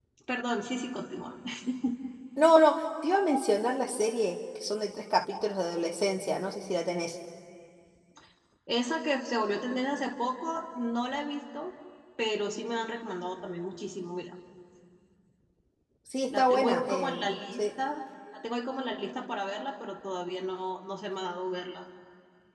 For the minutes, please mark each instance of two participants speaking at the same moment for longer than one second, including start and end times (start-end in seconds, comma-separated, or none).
16.4-17.6